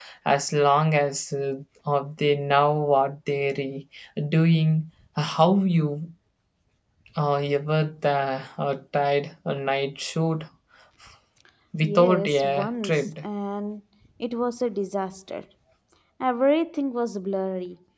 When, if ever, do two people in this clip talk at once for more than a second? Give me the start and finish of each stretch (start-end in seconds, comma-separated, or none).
11.8-13.1